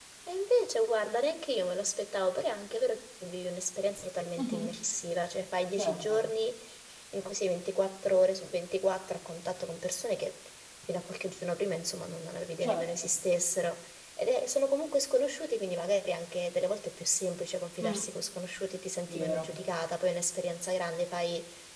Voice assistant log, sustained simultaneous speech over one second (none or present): none